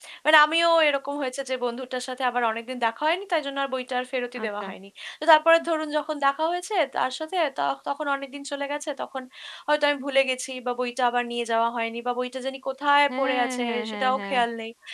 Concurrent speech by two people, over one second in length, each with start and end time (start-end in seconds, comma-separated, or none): 13.1-14.4